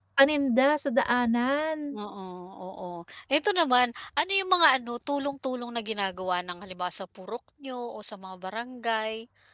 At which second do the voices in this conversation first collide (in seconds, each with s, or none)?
none